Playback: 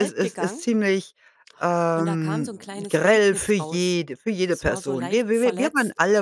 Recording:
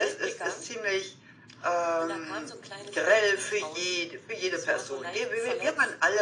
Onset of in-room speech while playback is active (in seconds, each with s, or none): none